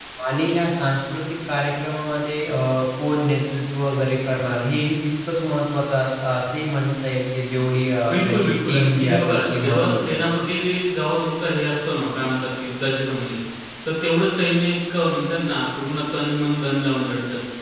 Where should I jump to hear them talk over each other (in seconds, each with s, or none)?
8.1 s